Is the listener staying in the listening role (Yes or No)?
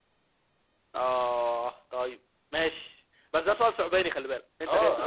No